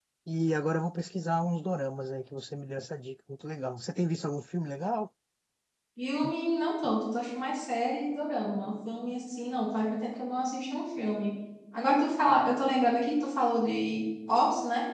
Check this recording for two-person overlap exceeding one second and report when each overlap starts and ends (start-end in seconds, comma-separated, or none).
none